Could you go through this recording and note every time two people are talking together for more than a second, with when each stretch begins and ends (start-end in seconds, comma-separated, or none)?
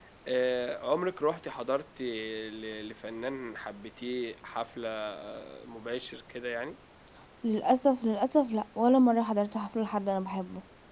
none